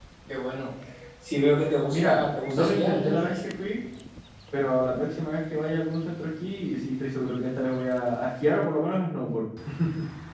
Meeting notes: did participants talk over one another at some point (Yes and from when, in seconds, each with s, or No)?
Yes, from 1.9 s